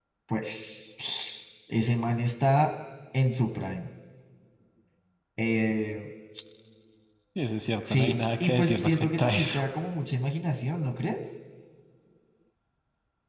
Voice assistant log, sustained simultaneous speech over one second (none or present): present